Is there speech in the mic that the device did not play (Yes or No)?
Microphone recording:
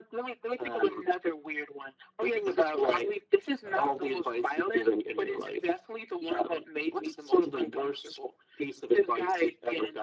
Yes